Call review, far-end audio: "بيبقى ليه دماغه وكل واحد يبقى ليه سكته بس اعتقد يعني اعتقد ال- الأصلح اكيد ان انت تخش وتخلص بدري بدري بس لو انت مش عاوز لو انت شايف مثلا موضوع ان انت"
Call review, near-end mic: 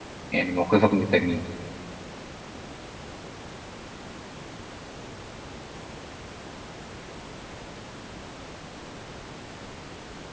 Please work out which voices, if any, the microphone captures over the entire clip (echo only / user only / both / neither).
user only